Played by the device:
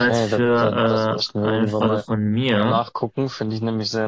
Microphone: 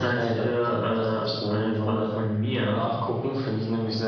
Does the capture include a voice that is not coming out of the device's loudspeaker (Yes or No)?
No